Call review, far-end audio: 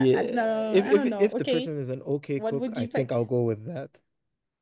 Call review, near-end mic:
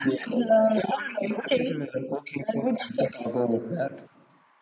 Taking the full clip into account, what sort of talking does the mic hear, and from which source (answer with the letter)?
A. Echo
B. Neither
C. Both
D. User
A